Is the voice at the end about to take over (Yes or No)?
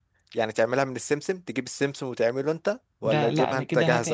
Yes